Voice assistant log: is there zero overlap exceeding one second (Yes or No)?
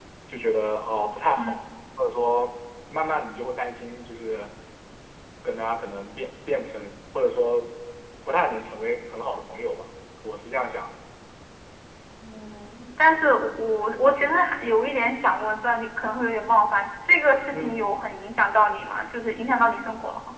Yes